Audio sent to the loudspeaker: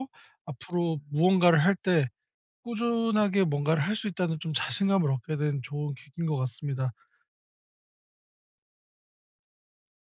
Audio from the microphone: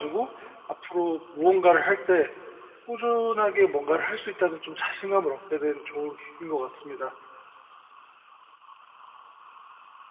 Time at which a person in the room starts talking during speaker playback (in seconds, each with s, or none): none